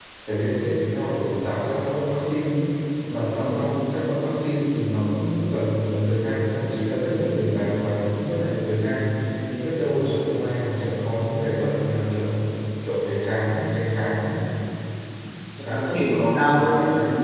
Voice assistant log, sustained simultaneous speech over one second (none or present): present